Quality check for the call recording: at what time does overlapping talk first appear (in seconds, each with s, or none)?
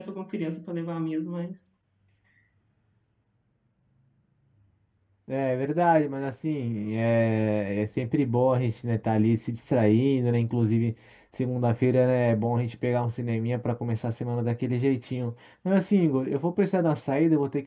none